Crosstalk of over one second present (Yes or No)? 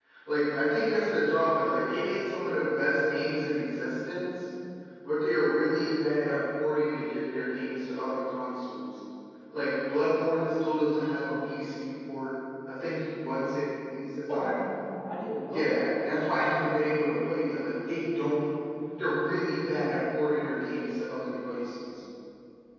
No